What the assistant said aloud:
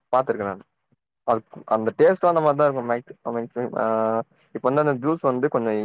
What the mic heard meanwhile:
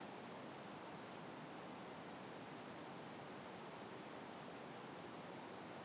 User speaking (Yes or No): No